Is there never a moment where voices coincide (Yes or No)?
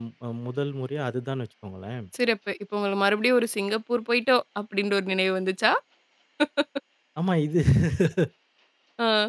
Yes